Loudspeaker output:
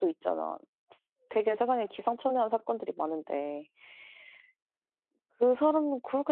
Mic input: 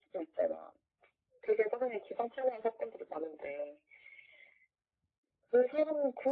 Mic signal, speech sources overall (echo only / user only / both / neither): echo only